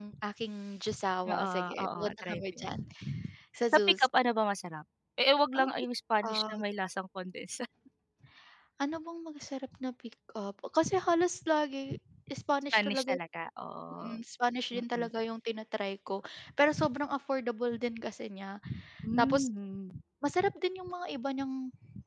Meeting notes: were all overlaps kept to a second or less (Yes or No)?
No